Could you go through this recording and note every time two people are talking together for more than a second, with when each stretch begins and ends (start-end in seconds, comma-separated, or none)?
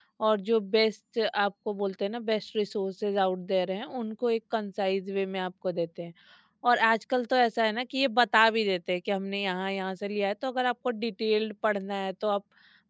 none